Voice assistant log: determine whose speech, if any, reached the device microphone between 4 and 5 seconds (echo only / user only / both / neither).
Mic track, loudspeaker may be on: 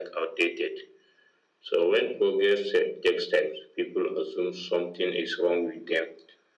echo only